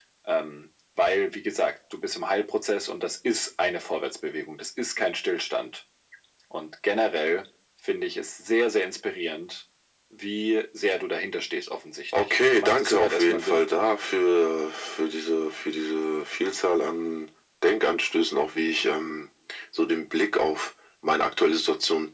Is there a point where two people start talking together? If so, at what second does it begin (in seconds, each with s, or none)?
12.1 s